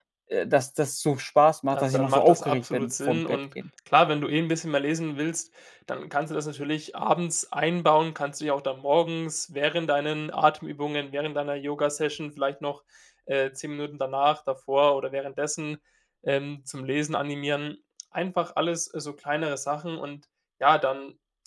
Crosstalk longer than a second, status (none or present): present